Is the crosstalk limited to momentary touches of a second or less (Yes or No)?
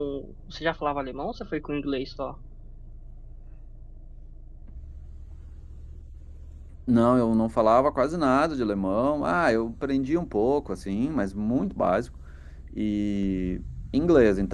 Yes